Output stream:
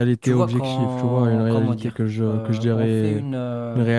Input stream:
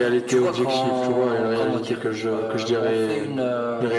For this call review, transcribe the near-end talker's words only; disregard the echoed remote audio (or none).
none